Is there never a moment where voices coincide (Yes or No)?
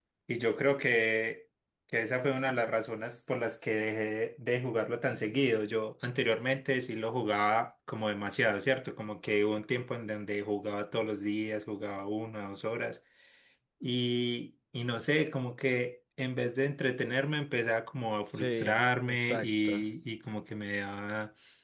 No